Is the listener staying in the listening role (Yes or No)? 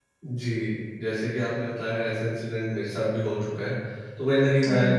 Yes